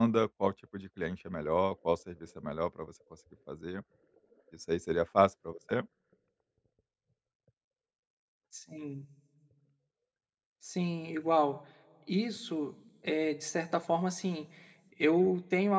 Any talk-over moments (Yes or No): No